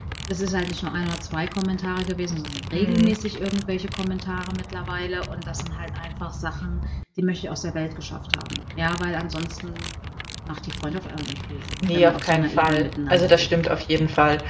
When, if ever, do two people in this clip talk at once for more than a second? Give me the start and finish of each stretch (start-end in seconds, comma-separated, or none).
11.8-13.6